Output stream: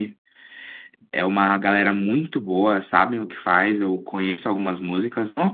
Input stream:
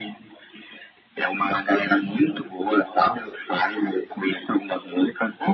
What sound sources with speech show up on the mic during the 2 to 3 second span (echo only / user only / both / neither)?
echo only